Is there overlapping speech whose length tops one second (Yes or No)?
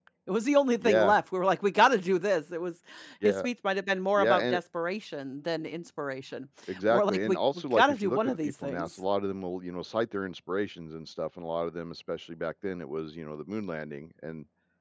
Yes